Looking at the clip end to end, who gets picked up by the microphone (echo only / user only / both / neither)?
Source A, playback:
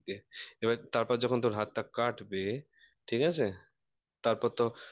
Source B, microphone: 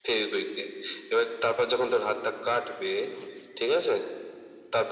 echo only